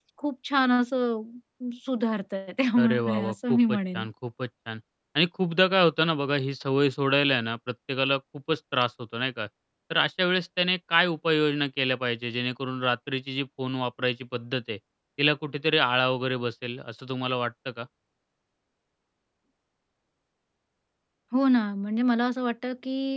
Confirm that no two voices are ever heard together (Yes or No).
No